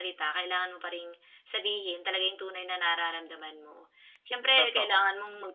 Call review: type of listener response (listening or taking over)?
listening